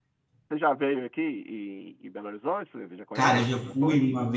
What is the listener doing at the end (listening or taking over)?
taking over